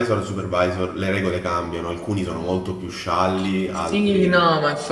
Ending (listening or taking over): taking over